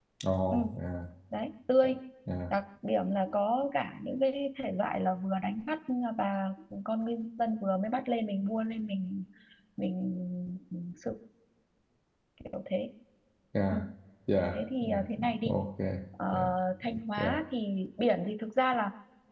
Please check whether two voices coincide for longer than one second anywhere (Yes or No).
No